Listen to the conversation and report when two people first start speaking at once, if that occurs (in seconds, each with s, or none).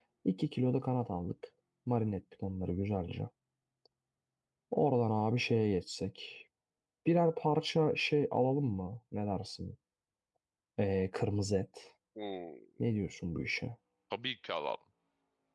none